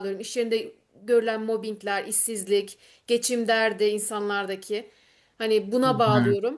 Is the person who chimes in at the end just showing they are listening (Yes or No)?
Yes